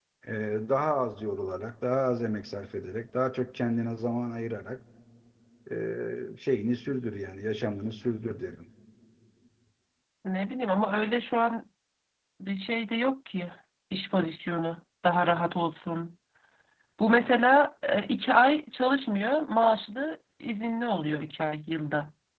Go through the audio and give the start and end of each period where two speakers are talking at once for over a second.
none

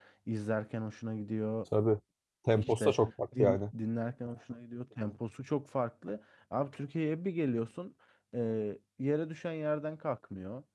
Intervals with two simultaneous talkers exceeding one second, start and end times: none

